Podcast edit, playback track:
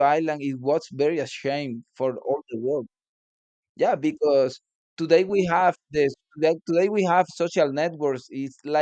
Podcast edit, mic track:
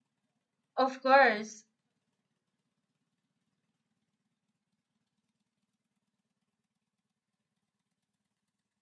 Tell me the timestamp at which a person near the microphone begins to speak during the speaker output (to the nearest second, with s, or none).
1 s